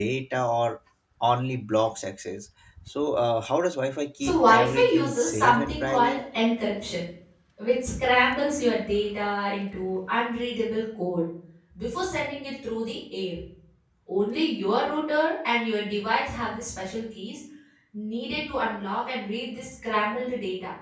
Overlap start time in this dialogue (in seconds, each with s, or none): 4.2 s